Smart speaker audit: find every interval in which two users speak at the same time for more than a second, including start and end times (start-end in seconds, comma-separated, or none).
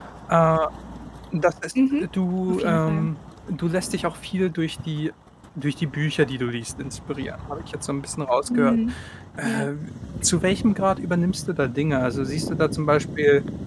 none